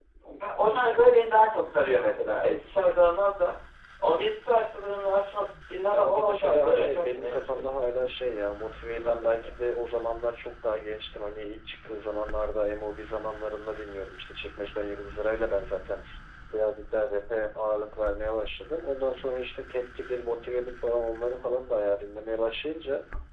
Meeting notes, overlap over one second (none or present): present